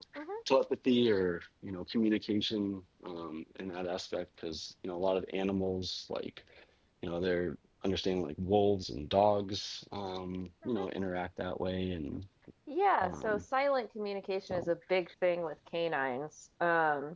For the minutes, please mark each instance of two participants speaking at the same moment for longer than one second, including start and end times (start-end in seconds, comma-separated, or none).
none